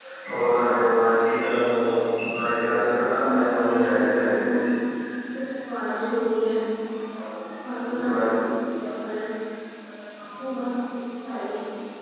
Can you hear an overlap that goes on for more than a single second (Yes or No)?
Yes